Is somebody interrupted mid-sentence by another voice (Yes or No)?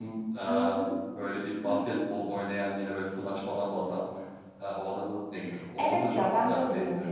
Yes